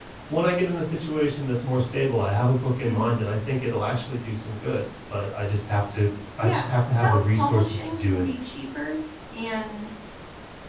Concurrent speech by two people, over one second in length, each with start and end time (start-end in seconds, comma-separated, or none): 6.4-8.2